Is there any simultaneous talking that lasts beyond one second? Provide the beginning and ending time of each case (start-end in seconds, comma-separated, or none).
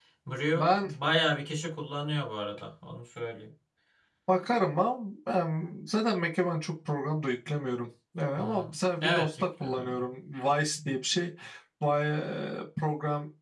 8.4-10.1